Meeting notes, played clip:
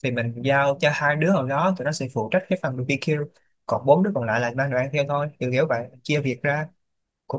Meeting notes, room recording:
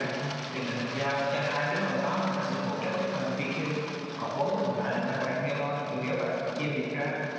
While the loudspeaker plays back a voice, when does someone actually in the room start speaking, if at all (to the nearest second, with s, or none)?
none